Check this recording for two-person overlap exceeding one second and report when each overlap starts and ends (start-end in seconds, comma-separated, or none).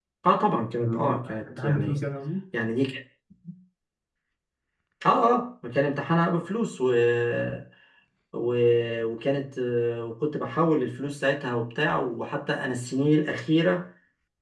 0.8-2.0